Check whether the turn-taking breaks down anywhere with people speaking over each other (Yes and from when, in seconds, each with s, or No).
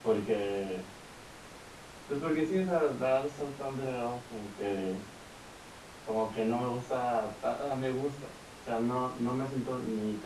No